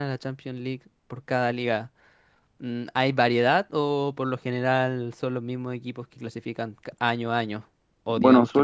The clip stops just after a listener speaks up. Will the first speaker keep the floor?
No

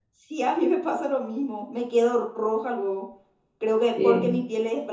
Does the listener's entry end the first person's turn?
No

